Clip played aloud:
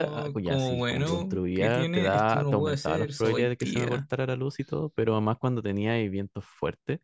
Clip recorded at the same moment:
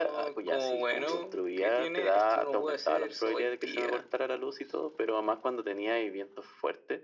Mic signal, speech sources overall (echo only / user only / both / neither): echo only